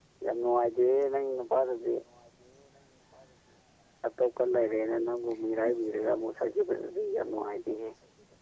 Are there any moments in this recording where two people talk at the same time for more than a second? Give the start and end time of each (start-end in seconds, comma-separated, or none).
none